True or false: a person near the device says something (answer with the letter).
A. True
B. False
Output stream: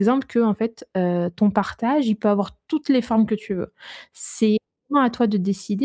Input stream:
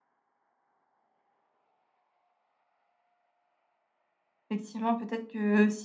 A